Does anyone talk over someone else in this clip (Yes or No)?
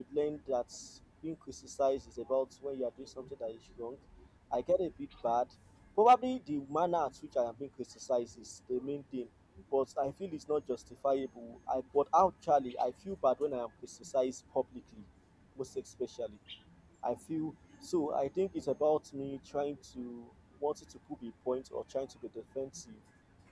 No